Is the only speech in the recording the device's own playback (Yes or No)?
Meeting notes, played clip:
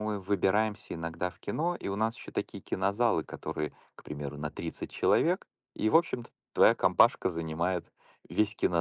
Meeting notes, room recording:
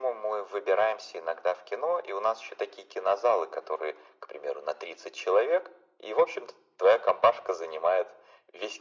Yes